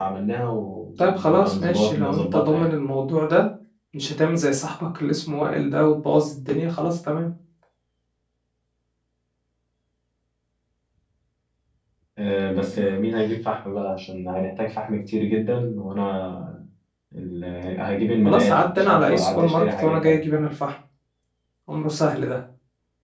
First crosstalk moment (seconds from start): 1.0 s

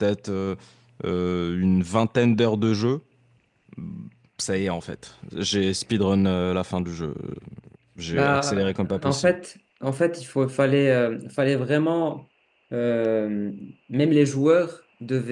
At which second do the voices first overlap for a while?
8.1 s

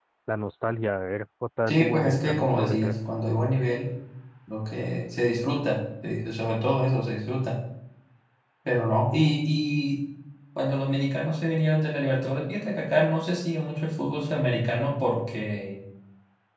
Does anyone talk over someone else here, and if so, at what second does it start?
1.7 s

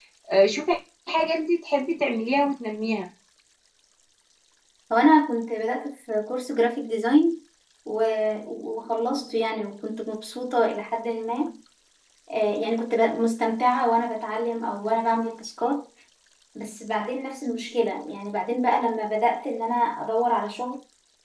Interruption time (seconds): none

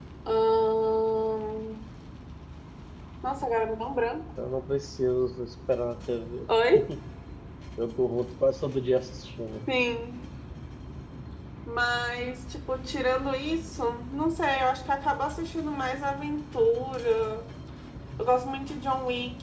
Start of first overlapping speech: none

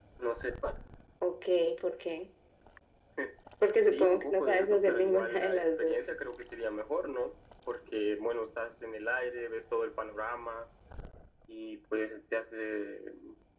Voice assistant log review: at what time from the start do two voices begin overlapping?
3.9 s

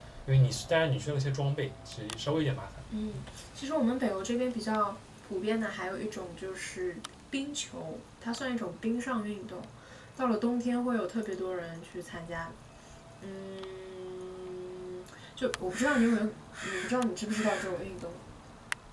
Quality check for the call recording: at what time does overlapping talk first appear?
none

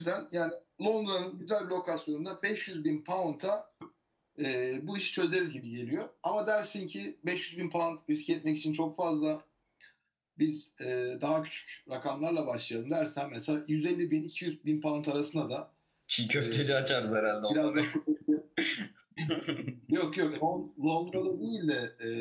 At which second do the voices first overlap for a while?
16.4 s

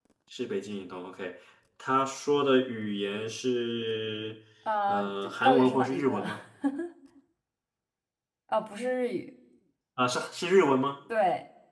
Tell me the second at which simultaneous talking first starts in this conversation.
4.9 s

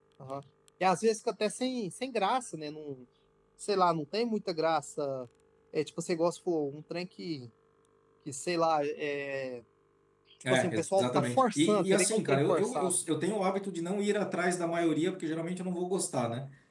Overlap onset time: 10.5 s

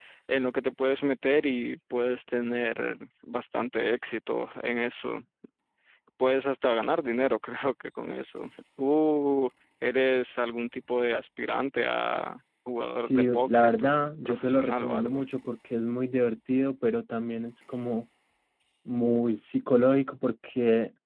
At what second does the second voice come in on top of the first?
12.9 s

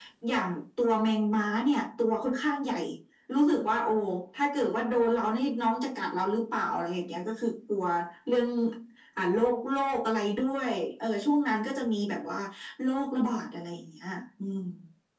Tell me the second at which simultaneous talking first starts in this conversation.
none

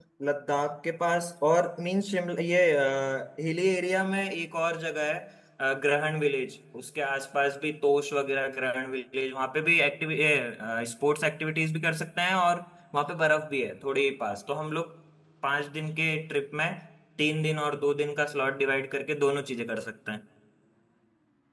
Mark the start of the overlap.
none

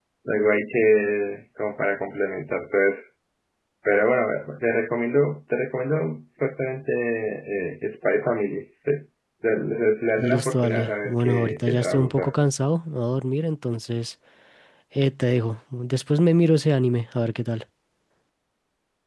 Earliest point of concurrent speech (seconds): 10.2 s

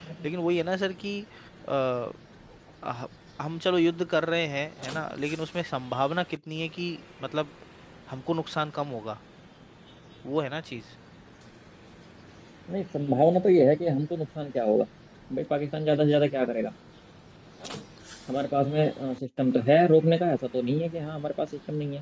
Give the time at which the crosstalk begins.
none

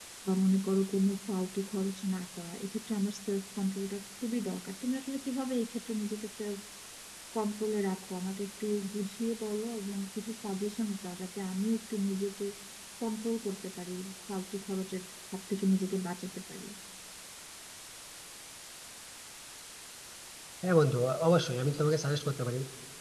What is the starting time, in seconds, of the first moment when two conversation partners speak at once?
none

